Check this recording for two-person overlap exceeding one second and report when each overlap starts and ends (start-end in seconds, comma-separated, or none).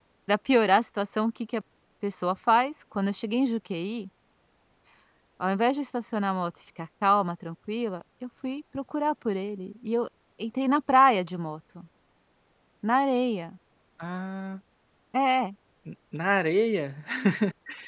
none